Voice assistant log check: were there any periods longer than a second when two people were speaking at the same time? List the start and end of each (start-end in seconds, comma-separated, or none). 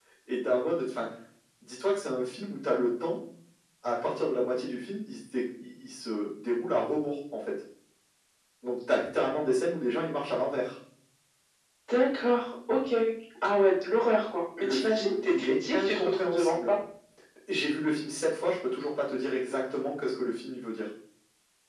14.6-16.7